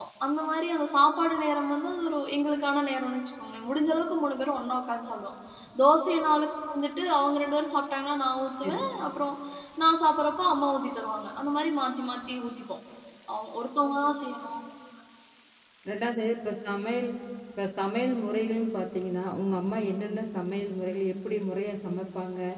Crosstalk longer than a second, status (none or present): none